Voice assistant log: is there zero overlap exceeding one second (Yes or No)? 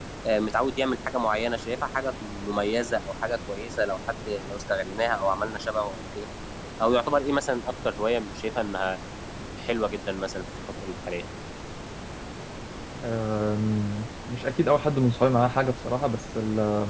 Yes